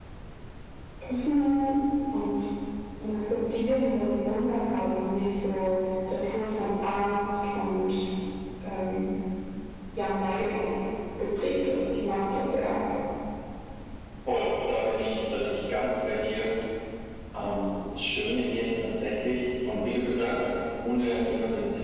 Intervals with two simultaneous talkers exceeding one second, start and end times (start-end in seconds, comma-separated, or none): none